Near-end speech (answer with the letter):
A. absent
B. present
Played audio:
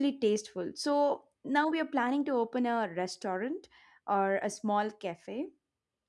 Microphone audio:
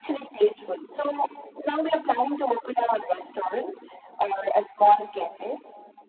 A